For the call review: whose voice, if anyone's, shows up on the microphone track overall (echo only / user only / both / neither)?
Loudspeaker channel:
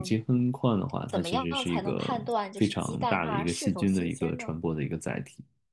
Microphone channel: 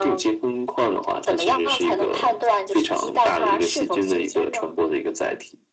echo only